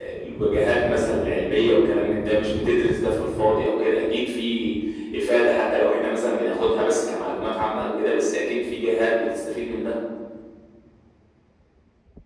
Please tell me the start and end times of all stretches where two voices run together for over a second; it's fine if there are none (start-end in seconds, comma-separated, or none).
none